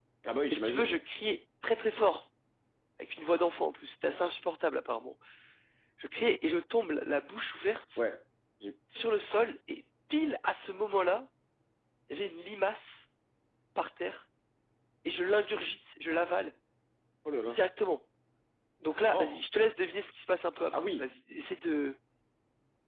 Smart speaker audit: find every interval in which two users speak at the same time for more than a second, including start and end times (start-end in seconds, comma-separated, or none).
none